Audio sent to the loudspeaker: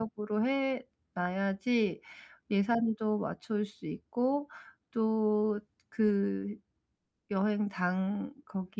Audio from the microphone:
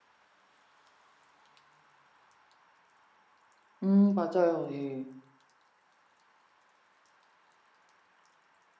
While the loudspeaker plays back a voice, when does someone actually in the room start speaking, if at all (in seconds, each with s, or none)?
3.8 s